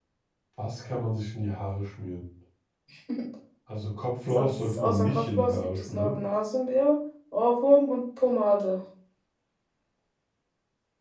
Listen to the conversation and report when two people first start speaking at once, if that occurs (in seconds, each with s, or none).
4.3 s